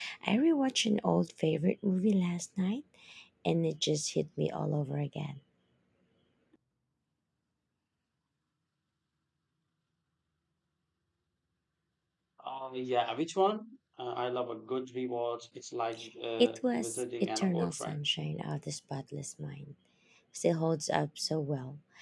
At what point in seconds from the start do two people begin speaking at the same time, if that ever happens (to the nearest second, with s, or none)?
16 s